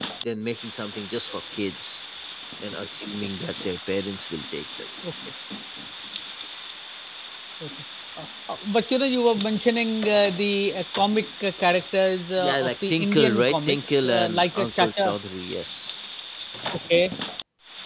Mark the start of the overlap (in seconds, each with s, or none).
12.4 s